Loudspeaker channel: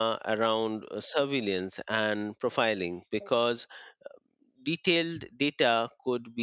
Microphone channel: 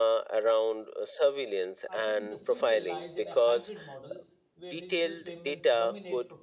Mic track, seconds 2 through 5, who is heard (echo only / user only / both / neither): both